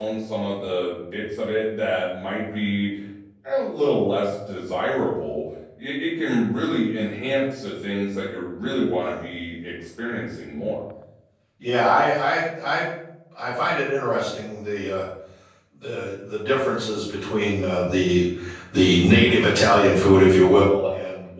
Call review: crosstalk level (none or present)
none